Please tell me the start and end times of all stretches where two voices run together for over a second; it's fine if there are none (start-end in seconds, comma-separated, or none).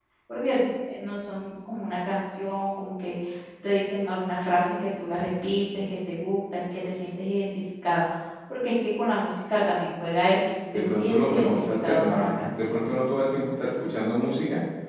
10.7-12.9